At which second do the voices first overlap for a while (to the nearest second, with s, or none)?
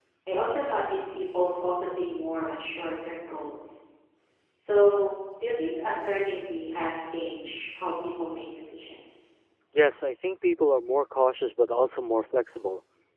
none